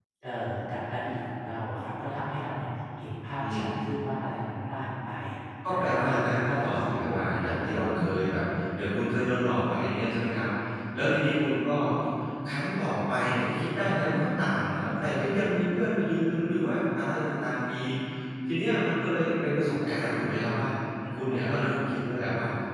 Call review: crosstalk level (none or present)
present